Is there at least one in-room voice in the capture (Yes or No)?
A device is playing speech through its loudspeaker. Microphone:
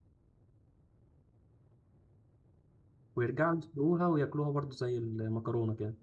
Yes